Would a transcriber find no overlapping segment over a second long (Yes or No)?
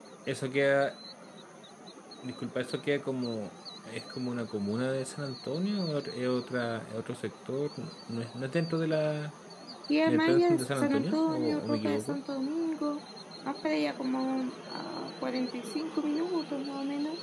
No